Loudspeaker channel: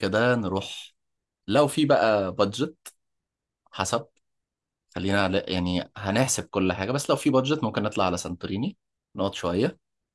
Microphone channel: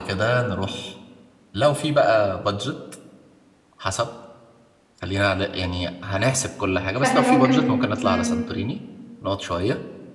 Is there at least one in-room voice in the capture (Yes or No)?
Yes